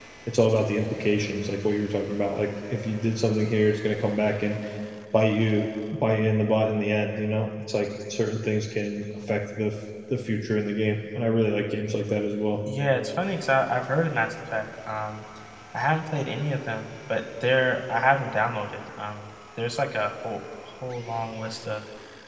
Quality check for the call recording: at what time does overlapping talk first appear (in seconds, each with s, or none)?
none